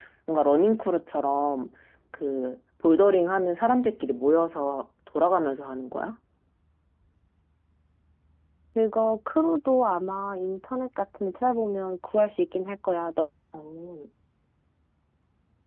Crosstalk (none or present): none